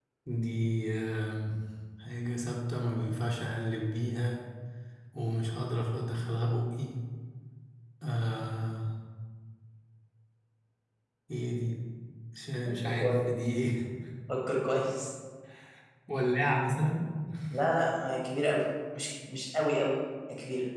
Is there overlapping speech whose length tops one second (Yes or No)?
No